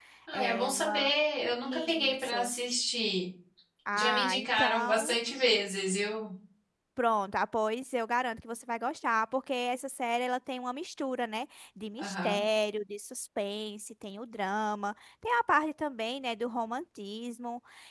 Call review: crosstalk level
present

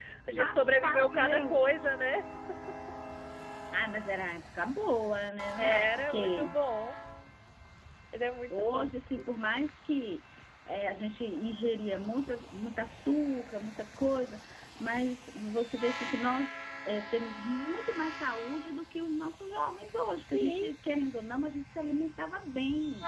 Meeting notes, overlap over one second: present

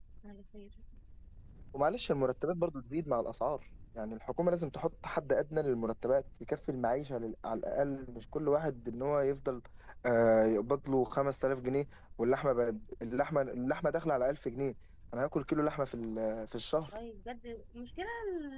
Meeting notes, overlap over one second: none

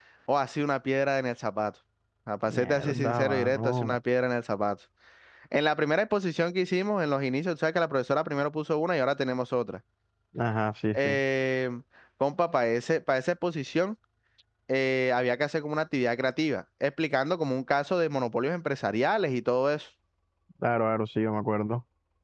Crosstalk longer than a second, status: present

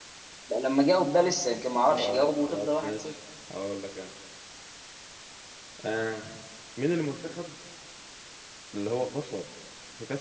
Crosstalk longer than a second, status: present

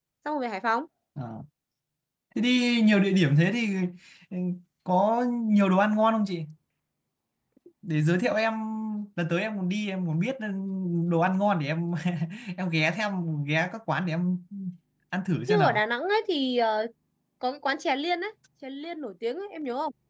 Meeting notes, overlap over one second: none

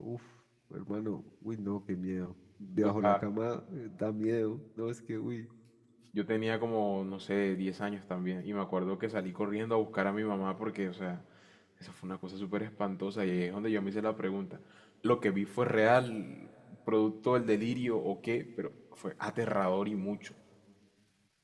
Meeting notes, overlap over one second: none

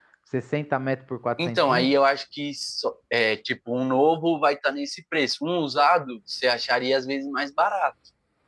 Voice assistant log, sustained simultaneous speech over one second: none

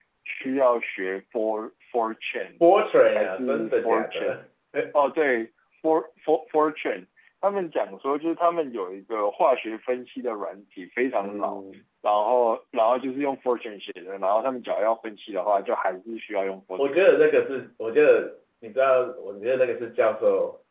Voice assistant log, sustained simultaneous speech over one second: present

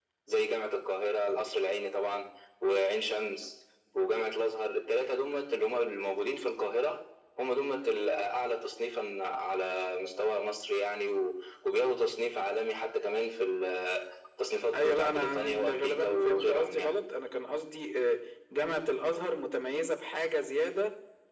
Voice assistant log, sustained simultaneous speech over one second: present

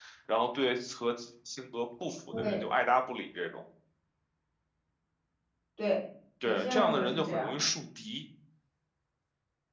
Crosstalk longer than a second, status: present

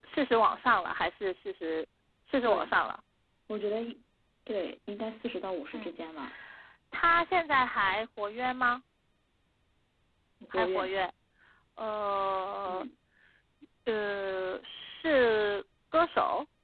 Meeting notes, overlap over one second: none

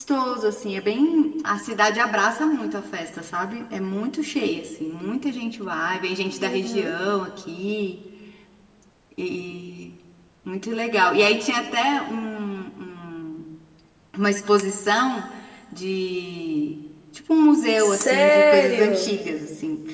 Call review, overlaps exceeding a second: present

